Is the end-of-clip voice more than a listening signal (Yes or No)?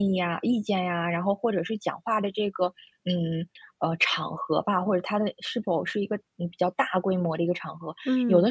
No